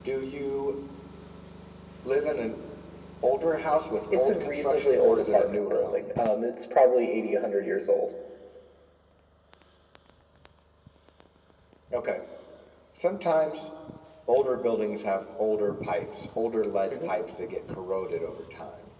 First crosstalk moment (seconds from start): 4.1 s

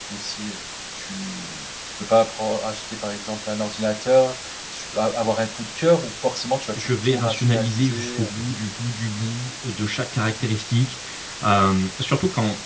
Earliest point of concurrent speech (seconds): 6.8 s

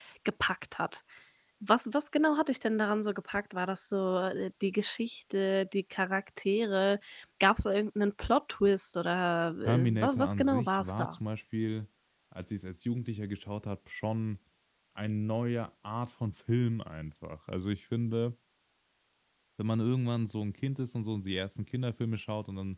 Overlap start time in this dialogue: 9.6 s

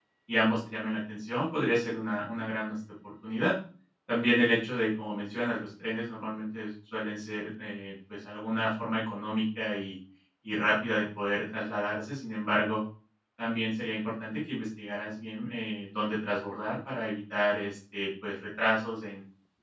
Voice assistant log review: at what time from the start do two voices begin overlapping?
none

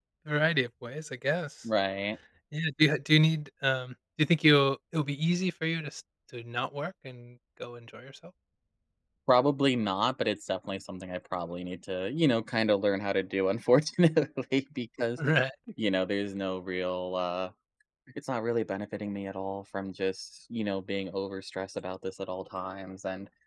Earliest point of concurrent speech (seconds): none

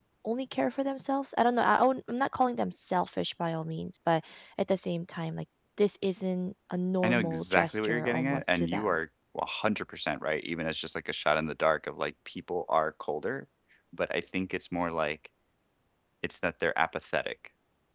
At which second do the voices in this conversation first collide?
7.0 s

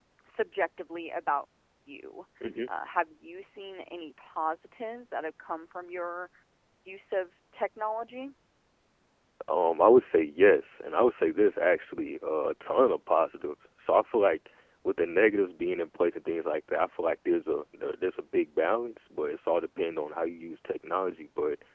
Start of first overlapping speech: none

